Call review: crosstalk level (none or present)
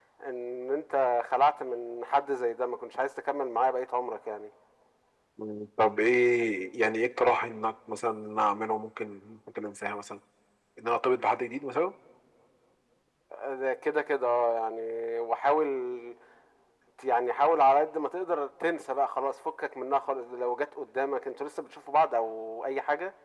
none